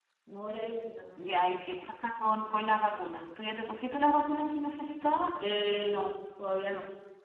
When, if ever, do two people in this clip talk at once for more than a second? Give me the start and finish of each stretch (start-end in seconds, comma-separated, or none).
none